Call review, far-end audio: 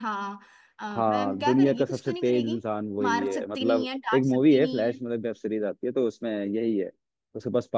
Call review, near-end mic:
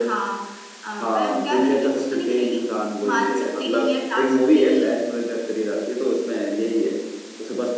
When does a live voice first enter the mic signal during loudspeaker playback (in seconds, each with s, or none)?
none